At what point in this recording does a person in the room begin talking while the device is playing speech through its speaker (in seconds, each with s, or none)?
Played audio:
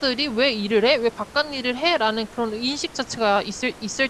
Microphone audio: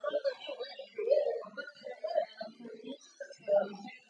none